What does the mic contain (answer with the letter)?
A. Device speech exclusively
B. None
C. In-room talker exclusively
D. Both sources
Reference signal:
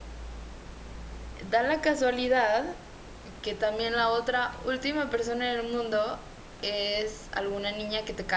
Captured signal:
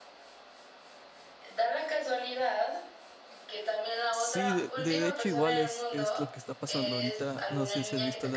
D